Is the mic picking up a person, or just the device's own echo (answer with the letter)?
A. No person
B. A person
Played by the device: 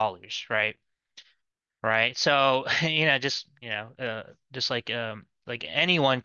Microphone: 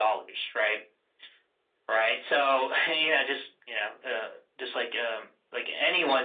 A